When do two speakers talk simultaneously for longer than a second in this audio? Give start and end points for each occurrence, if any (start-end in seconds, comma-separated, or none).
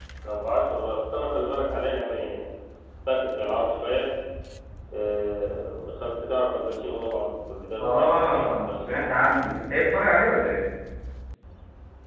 7.8-9.1